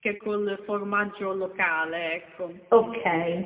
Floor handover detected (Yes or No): Yes